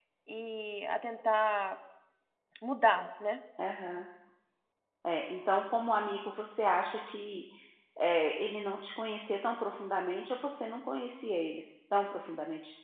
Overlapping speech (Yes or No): No